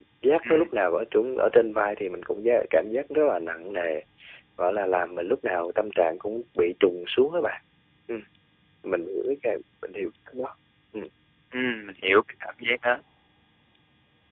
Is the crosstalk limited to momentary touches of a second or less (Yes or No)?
Yes